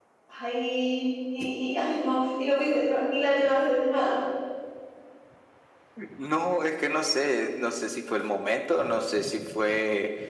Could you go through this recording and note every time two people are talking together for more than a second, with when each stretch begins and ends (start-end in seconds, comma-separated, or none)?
none